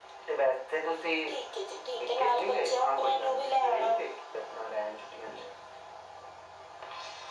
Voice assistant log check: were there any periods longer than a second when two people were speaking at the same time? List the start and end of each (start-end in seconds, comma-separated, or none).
2.2-4.0